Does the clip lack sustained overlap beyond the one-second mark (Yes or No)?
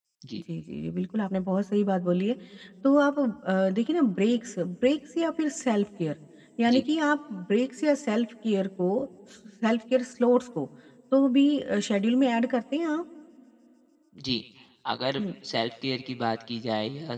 Yes